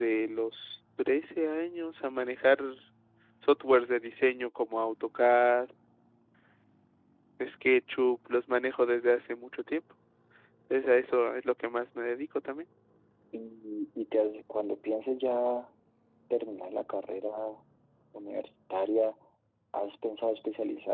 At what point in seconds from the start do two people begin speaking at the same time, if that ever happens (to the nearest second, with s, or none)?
none